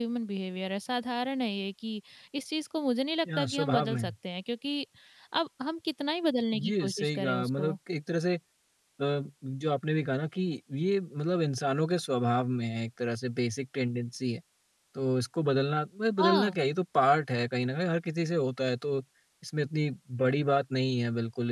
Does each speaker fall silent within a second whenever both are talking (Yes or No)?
No